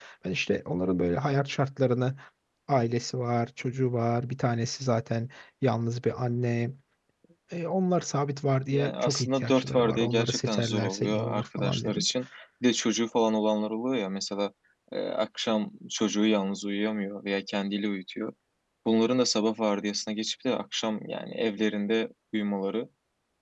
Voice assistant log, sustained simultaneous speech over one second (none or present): present